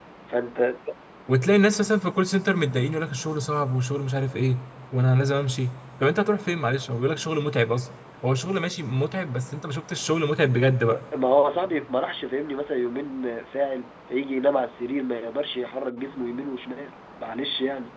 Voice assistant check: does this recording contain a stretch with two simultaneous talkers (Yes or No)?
No